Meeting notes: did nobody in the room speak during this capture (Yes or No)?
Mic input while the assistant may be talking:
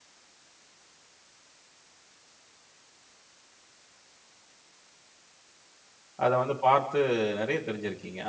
No